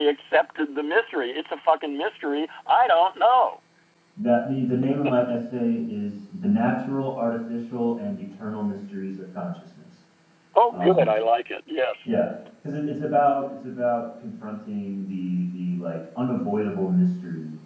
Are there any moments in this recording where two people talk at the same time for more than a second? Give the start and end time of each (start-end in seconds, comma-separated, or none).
none